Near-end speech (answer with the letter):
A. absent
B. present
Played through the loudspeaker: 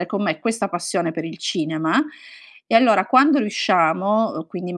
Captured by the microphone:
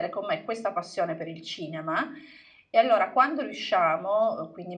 A